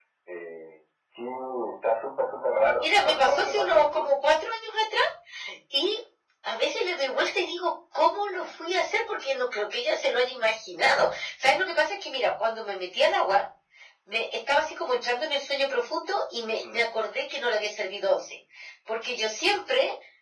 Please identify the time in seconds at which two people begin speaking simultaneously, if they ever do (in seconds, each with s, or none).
2.8 s